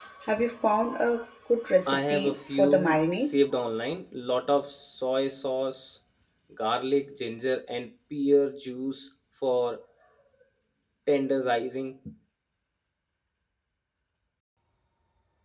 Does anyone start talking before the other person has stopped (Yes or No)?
Yes